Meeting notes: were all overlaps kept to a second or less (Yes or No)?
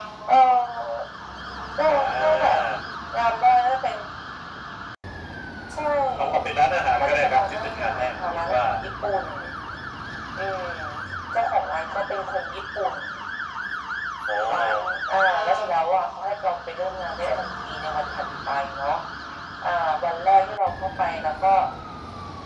No